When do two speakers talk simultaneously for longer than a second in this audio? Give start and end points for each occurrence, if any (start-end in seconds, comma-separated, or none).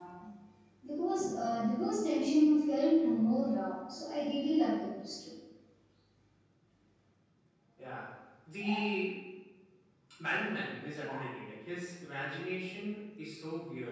none